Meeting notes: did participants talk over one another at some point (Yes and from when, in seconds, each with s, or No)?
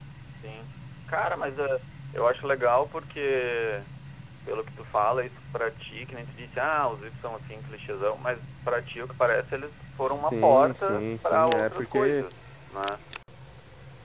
Yes, from 10.3 s